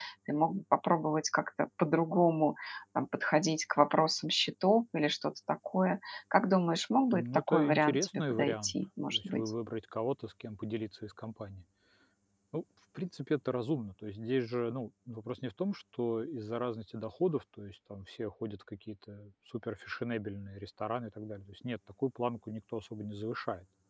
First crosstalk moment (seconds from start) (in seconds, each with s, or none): 7.1 s